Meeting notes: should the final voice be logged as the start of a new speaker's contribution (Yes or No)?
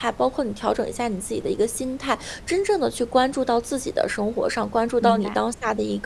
No